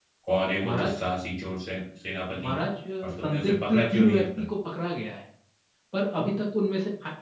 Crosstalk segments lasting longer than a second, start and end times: 3.0-4.5

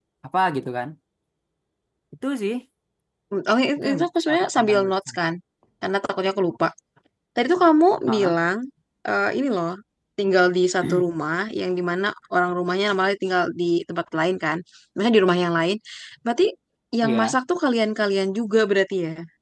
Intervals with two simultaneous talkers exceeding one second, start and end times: 3.8-5.2

